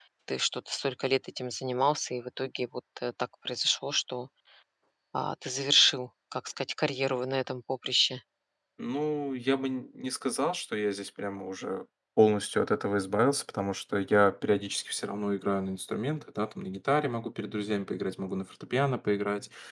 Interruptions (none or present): none